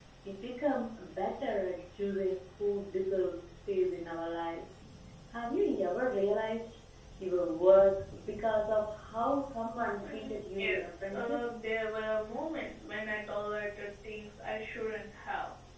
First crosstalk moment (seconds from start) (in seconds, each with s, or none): 10.0 s